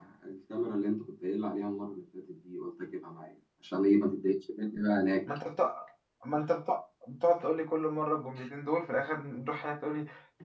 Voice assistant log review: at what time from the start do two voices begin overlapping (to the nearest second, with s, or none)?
none